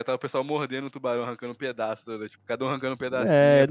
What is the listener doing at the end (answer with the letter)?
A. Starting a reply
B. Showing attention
A